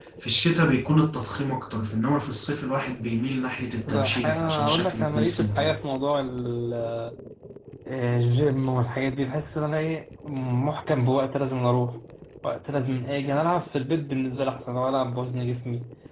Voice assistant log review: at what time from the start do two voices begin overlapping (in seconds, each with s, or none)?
3.9 s